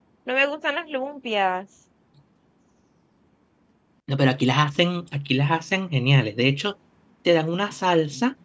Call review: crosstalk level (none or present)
none